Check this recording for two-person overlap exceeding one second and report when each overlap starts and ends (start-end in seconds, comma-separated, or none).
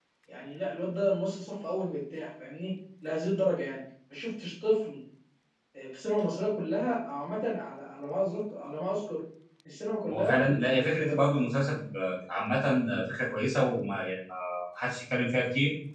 10.1-11.4